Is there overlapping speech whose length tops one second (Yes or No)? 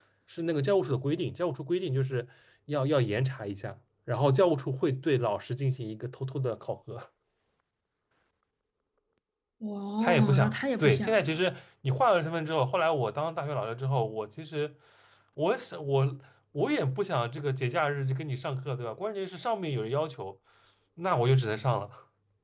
Yes